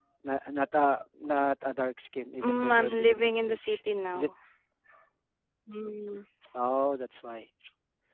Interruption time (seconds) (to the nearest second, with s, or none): 2 s